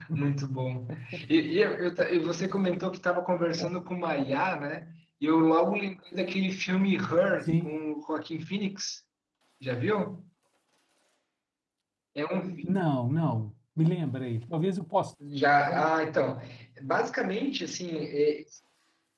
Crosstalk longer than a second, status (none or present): none